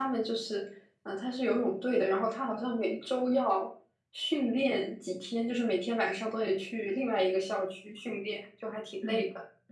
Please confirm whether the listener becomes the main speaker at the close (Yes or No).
Yes